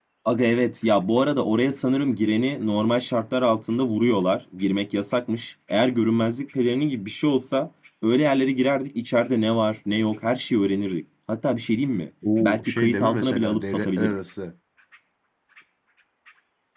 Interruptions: present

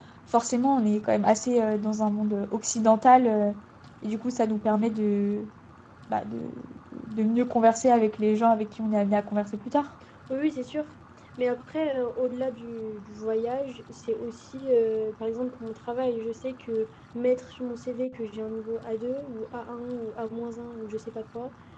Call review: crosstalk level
none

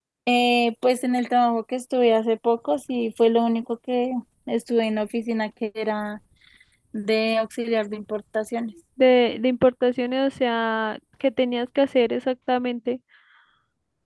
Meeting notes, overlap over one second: none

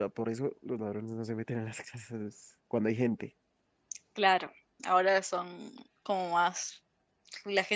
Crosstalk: none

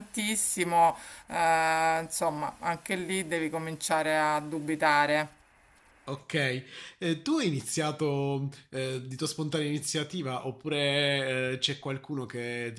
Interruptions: none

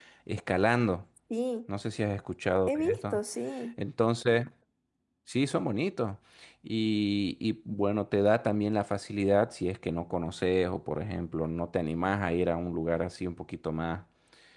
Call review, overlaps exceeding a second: none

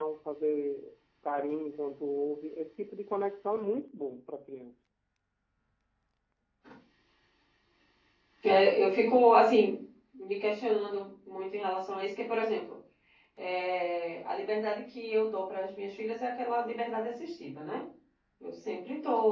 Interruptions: none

